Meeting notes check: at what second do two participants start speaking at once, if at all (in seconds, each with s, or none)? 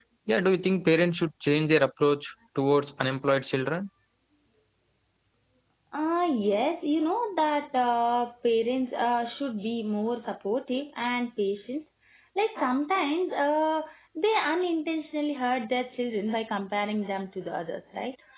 none